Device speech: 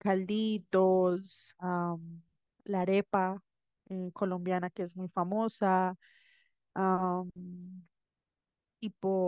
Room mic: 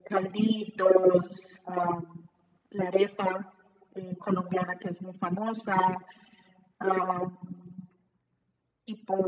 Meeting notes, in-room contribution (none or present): none